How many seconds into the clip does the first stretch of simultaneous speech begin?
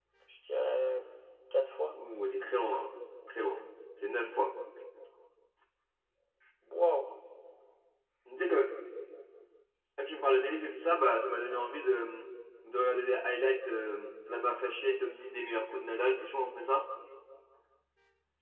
none

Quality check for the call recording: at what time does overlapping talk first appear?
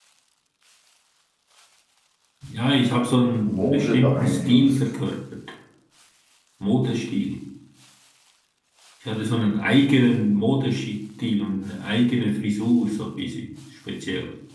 3 s

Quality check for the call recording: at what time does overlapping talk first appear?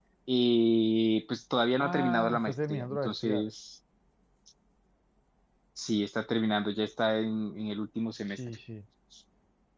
2 s

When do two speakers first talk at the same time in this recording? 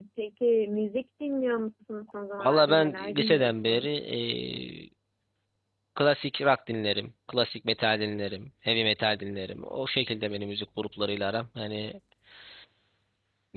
2 s

